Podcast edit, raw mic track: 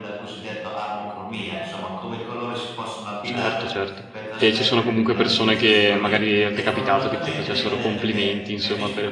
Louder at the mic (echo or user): user